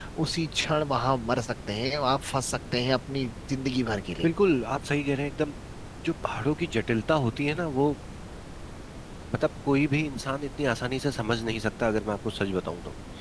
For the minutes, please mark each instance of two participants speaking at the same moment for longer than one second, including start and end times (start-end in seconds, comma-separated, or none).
none